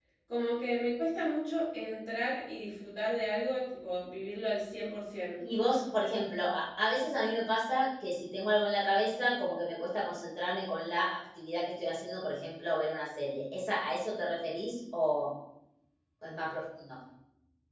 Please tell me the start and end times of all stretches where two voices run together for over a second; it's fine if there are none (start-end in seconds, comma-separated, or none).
none